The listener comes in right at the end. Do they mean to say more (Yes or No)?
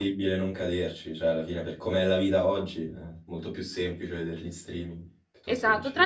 Yes